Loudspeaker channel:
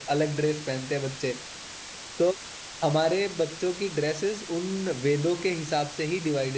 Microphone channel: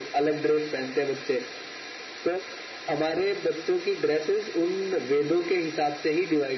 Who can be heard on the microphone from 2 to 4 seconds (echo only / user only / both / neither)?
echo only